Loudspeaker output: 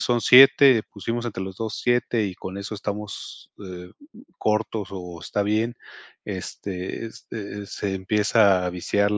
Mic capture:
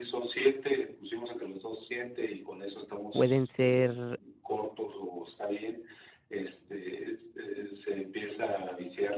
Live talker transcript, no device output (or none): pueden ser